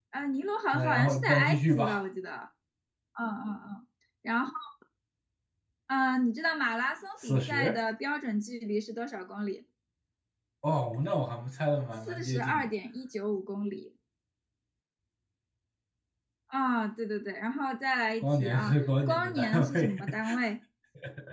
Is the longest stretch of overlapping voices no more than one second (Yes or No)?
No